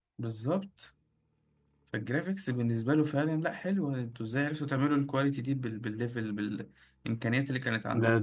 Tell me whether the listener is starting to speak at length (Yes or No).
Yes